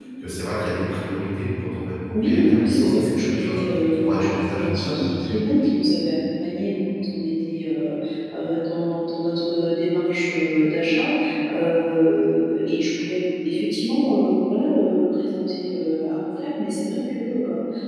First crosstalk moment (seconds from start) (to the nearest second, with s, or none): 2 s